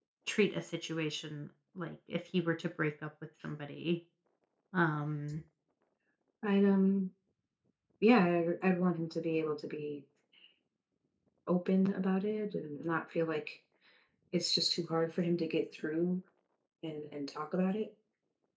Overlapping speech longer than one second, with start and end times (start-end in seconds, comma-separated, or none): none